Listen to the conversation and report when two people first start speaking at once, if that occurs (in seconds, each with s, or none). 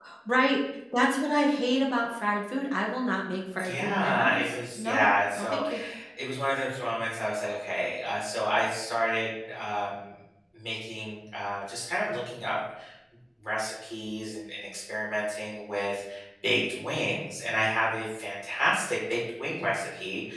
3.6 s